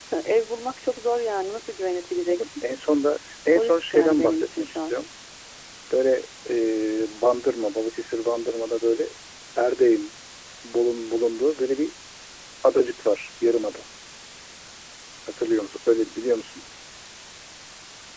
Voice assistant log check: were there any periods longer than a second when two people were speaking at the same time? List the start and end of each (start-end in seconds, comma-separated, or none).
3.6-4.9